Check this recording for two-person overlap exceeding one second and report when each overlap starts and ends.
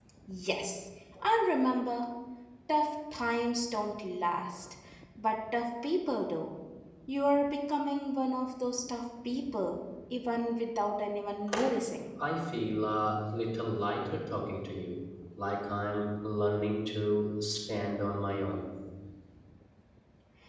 none

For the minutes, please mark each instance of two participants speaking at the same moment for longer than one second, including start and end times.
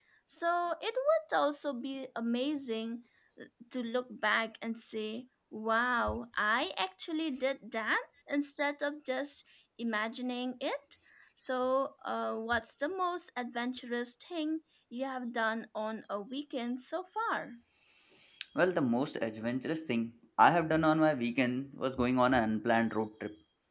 none

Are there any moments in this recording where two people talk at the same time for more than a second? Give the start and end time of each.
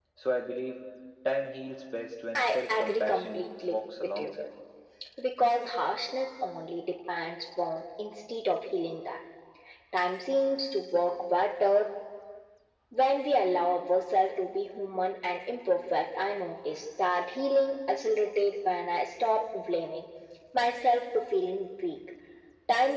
2.3-4.4

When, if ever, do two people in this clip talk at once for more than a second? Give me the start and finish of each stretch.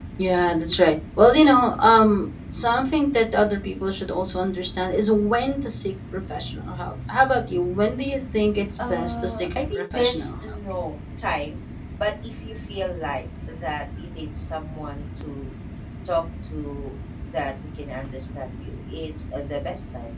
8.8-10.3

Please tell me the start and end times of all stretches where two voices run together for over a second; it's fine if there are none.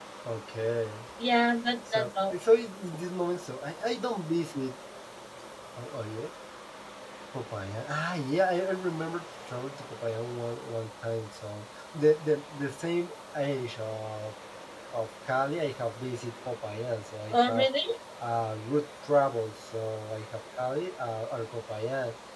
none

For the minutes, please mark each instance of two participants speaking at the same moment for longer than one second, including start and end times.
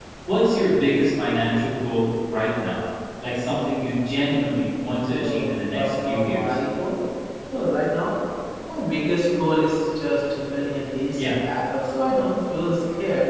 5.1-6.6

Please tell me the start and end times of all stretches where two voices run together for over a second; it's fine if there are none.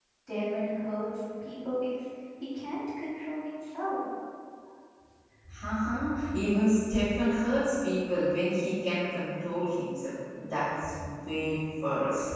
none

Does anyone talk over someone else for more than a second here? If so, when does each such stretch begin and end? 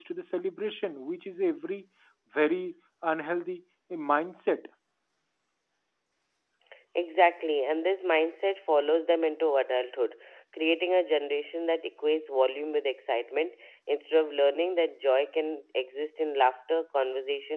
none

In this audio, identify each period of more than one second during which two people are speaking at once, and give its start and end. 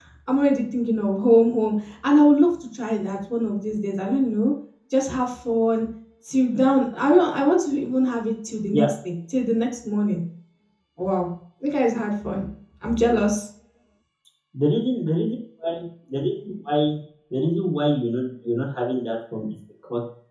none

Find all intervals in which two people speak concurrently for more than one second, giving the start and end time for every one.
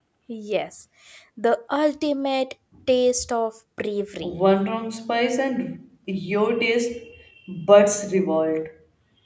none

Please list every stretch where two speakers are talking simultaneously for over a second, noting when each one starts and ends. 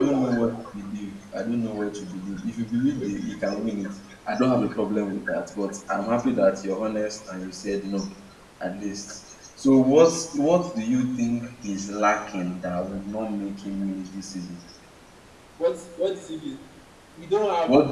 none

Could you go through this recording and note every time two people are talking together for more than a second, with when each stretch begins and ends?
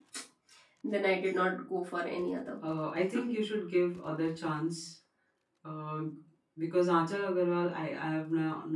none

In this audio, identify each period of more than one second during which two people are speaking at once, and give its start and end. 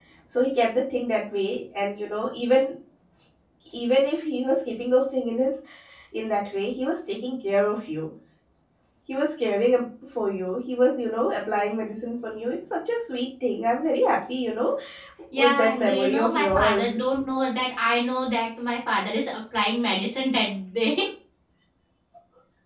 15.4-17.0

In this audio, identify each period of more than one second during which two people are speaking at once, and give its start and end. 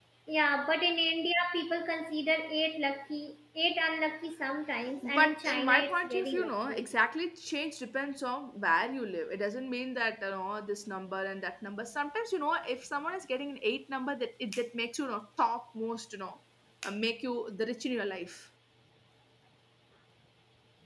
5.2-6.9

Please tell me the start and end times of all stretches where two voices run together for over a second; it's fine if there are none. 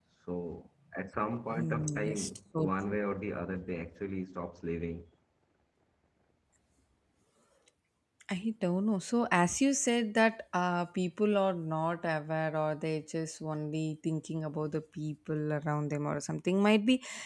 1.5-2.7

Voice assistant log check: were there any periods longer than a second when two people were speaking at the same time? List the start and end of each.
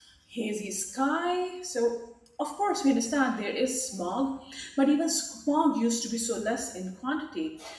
none

